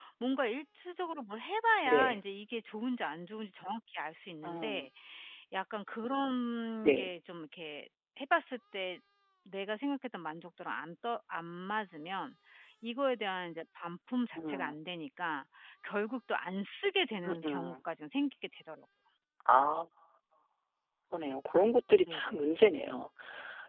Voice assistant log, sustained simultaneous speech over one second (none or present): none